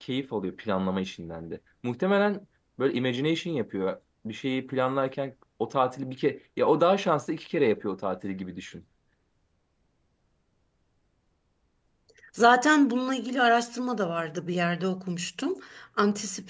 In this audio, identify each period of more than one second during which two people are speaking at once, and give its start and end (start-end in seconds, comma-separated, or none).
none